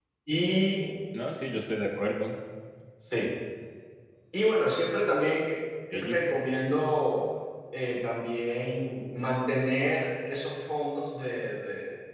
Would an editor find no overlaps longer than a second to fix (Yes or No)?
Yes